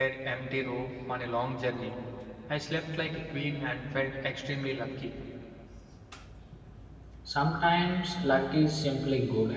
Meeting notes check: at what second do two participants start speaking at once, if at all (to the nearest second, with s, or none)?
none